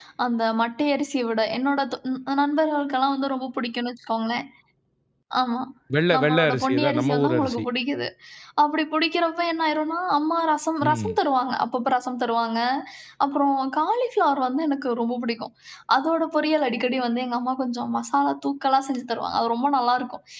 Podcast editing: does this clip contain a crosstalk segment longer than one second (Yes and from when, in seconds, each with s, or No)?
Yes, from 6.1 s